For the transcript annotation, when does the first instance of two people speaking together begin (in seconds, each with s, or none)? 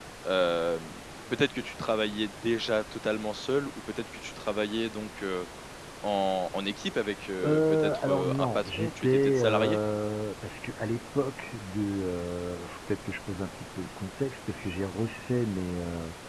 7.4 s